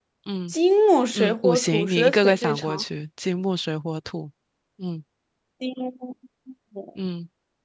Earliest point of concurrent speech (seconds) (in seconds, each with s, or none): 1.1 s